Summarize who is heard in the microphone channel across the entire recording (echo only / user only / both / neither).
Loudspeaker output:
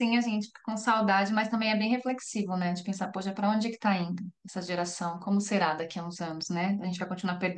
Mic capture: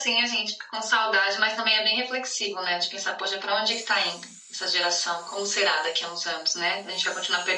echo only